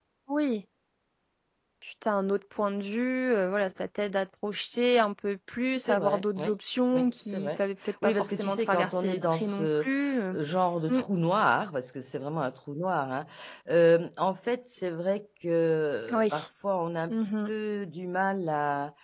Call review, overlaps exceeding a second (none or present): present